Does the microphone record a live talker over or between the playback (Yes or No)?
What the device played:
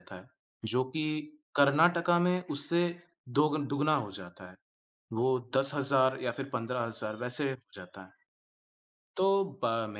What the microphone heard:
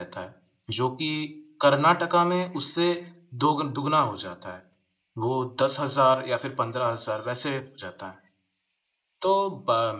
No